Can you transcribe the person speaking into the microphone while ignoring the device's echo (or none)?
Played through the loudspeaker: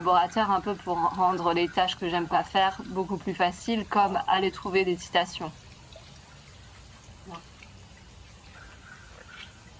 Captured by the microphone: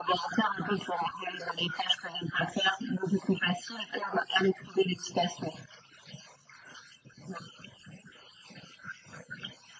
none